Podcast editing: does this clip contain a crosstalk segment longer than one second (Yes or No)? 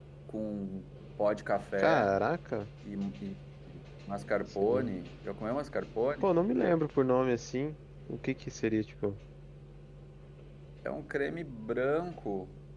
No